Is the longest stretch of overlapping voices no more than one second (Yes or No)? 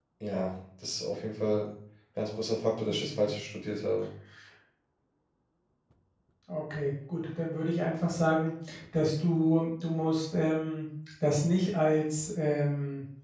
Yes